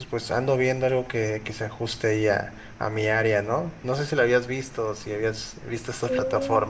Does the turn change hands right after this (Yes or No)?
Yes